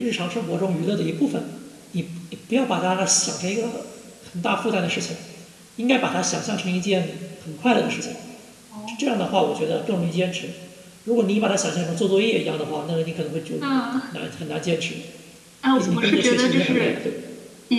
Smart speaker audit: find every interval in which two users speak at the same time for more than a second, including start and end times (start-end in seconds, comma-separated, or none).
15.8-17.0